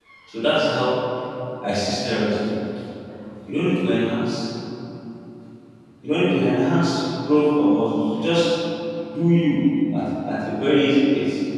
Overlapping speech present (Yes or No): No